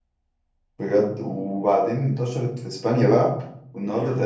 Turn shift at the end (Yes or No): No